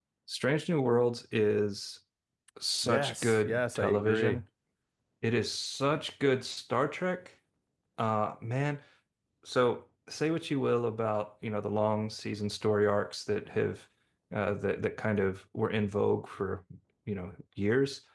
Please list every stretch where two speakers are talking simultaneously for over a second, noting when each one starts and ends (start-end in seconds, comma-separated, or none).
2.8-4.4